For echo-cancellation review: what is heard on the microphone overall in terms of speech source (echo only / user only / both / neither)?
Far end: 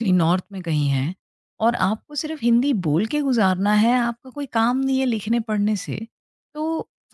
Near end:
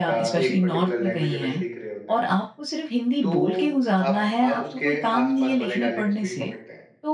both